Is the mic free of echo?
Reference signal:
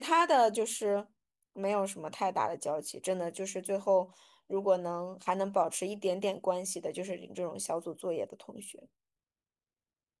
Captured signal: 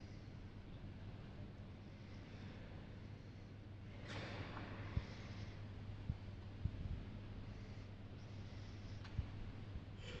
Yes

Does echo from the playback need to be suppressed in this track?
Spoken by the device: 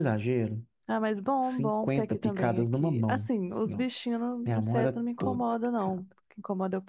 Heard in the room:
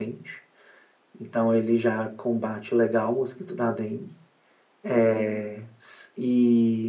No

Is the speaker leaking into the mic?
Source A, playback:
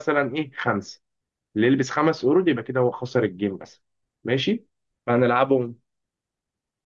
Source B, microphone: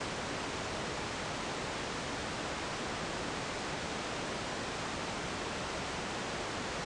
No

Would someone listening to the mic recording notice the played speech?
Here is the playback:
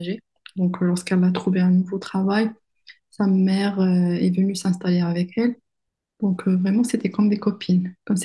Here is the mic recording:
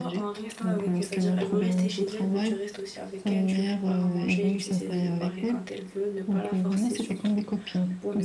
Yes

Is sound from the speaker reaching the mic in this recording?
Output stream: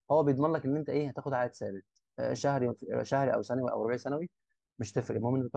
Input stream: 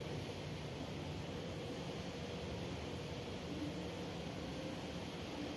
No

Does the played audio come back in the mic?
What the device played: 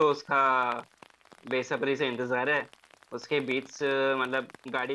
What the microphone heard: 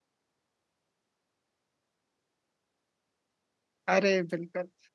No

